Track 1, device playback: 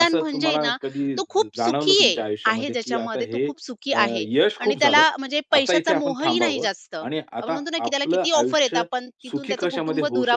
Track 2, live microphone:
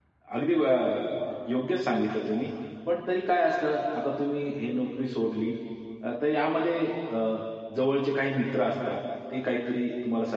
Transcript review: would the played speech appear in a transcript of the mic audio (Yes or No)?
No